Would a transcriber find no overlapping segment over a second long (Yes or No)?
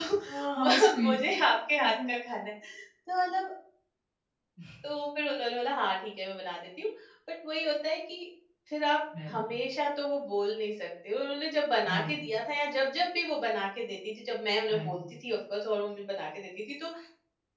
Yes